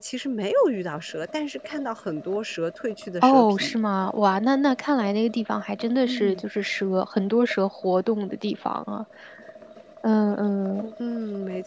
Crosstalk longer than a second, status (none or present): none